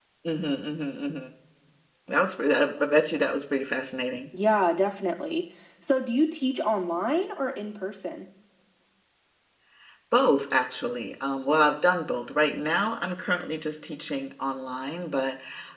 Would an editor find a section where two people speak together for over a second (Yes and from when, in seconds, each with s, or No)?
No